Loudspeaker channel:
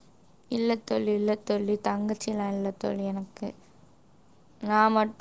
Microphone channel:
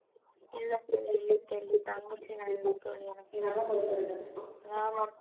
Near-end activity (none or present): present